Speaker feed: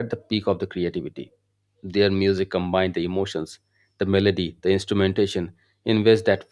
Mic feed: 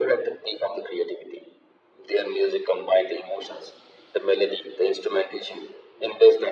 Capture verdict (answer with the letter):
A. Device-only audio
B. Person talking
A